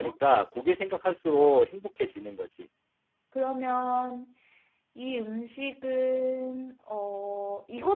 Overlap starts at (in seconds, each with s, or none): none